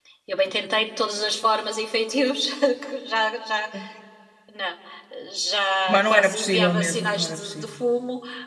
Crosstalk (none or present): present